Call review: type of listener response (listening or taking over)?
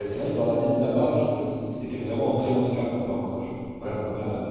taking over